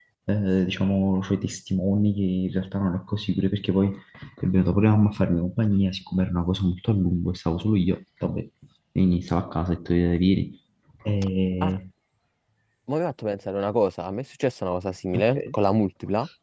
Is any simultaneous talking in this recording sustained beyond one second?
No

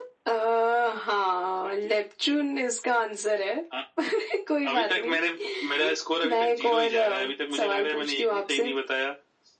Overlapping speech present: Yes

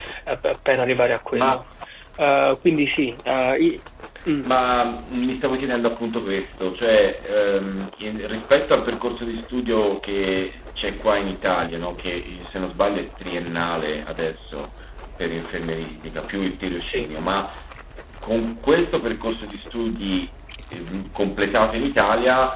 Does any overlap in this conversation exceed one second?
No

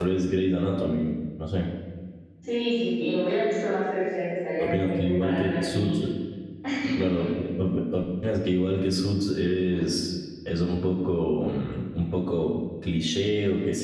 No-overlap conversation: No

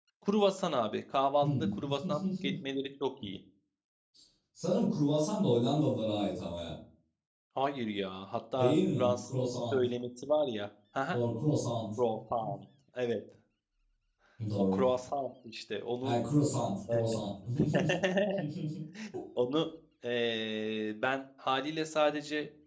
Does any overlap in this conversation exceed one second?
Yes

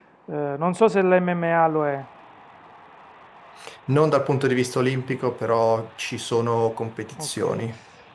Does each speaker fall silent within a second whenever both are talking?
Yes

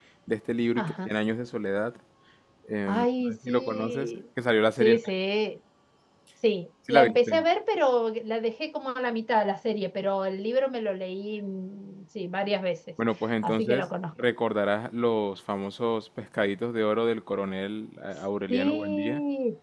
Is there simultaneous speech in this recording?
Yes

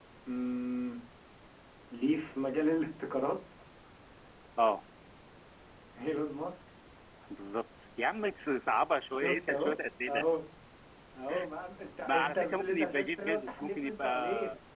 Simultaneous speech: Yes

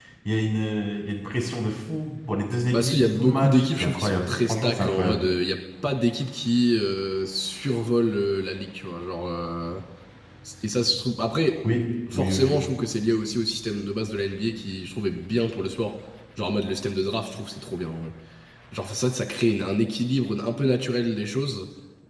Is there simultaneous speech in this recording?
Yes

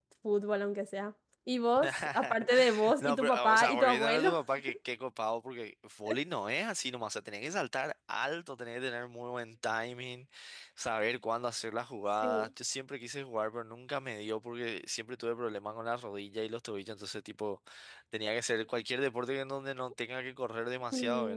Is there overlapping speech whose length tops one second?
Yes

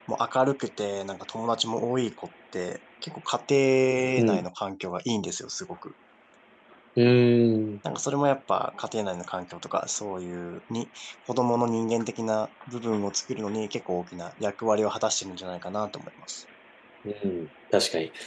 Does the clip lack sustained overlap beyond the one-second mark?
Yes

